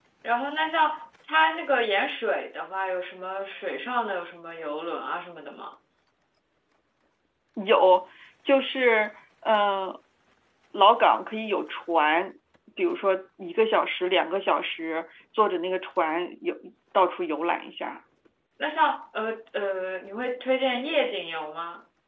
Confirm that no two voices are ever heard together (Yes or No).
Yes